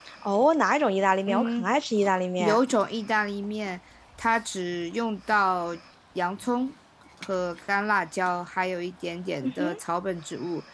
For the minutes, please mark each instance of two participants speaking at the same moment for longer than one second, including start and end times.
none

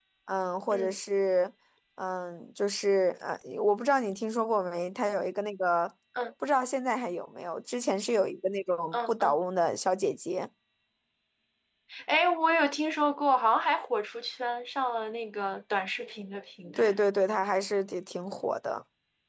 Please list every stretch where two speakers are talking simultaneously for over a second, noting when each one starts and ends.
none

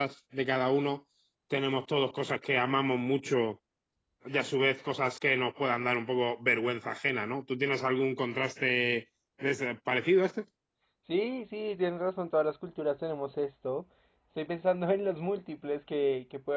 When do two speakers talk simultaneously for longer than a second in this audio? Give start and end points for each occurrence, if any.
none

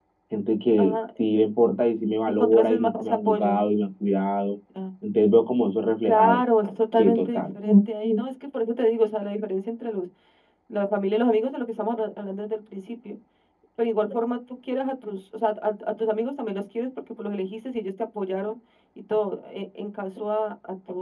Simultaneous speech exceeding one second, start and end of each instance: 2.3-3.7

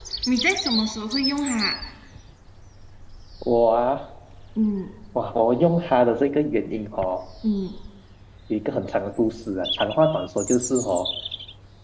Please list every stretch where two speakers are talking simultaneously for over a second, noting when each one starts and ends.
none

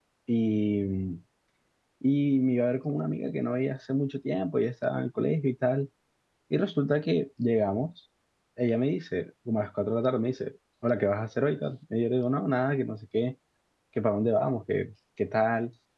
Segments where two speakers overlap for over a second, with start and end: none

